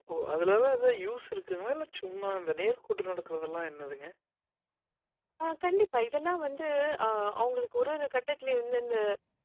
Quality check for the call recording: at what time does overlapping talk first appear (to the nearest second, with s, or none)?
none